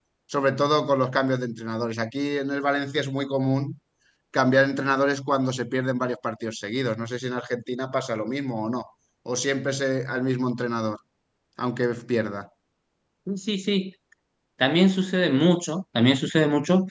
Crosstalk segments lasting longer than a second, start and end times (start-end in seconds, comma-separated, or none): none